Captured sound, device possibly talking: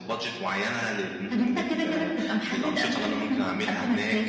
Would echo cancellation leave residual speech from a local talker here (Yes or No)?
No